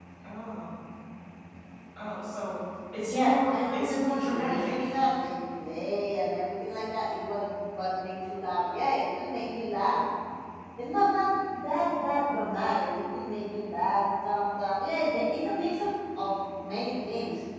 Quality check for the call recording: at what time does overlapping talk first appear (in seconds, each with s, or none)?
3.0 s